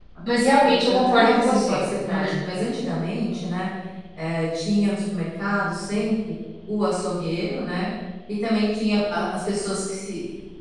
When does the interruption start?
0.6 s

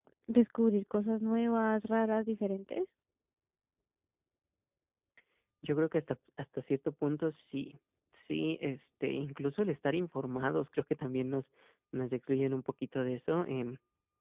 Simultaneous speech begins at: none

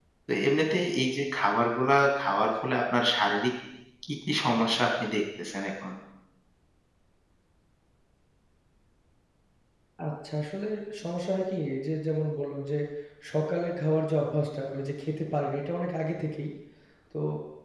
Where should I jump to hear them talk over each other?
none

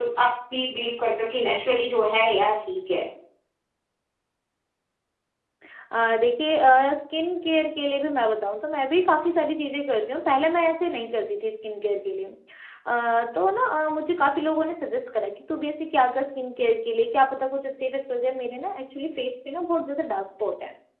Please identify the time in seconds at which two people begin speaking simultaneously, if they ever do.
none

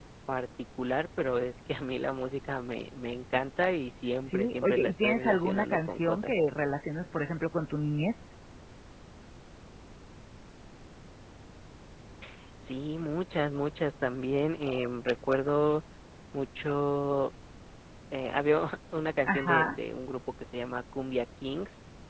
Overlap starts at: 4.3 s

